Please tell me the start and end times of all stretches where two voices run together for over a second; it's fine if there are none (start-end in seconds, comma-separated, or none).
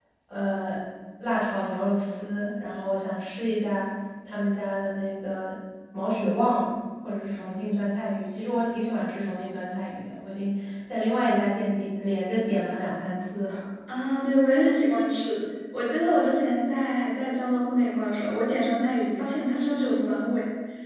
none